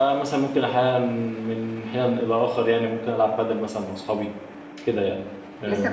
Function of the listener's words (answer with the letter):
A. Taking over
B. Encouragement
A